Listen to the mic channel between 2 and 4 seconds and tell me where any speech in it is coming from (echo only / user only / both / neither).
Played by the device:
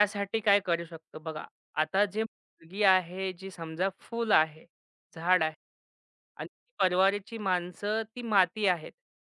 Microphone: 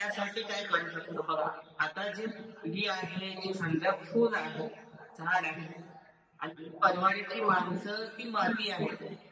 echo only